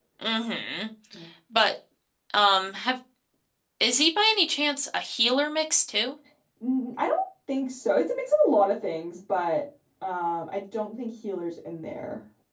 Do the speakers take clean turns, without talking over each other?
Yes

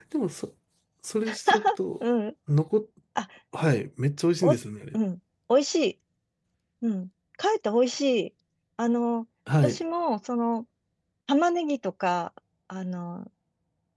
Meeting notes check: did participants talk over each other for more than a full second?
No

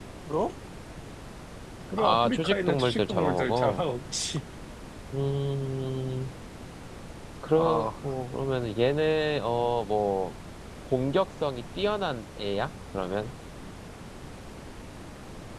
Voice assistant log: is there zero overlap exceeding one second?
No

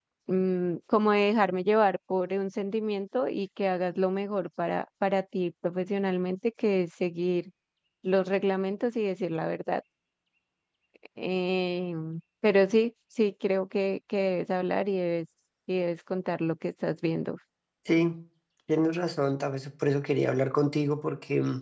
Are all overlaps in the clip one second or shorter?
Yes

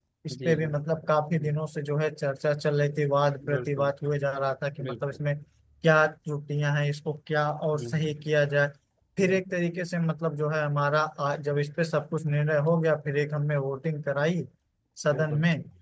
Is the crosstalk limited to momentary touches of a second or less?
Yes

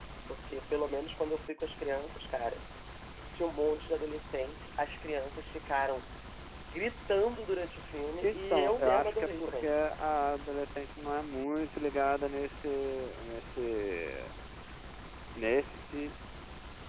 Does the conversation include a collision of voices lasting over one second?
Yes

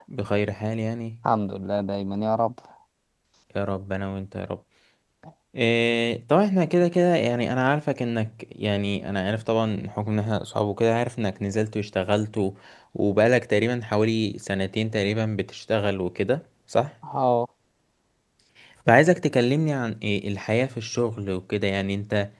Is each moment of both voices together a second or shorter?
Yes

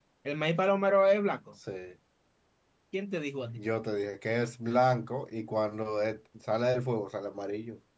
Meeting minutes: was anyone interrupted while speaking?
No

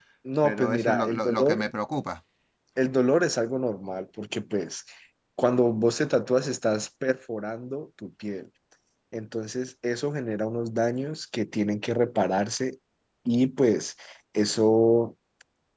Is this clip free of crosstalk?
No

